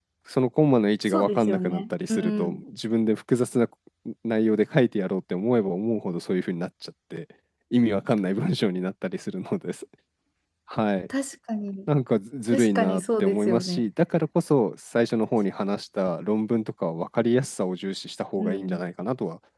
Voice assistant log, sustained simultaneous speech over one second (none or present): present